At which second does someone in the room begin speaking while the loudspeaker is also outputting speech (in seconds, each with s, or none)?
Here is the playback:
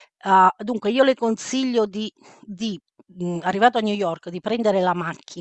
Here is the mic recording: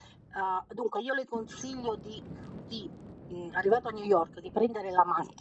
none